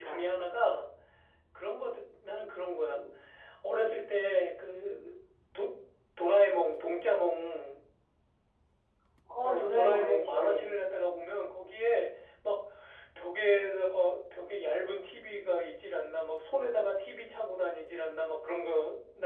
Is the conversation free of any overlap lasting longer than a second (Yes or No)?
No